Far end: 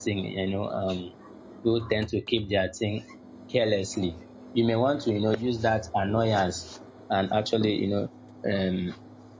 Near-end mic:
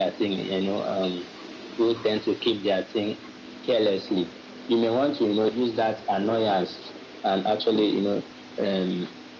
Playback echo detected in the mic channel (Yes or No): Yes